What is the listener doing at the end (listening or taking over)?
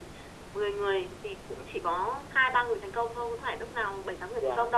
listening